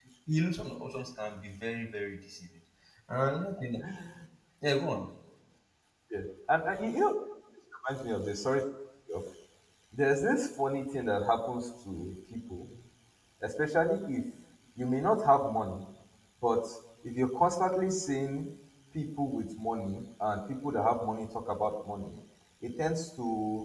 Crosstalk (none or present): none